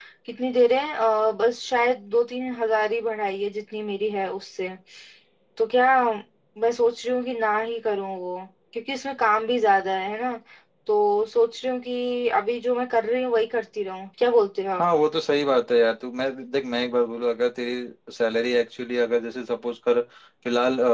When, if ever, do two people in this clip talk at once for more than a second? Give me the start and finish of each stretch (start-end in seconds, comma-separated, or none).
none